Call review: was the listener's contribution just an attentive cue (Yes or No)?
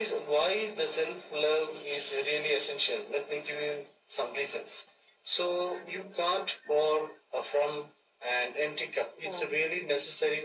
Yes